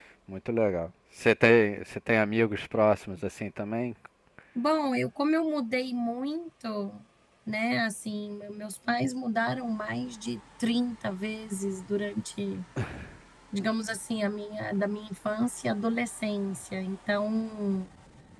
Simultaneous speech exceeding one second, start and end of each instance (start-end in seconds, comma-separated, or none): none